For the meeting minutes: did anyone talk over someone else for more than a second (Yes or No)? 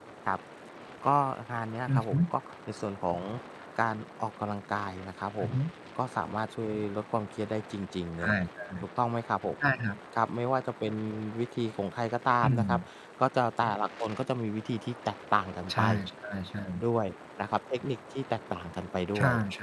No